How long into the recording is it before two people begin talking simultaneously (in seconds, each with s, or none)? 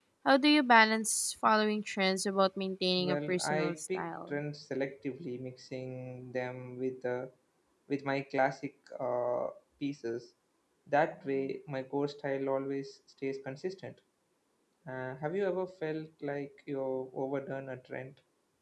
3.0 s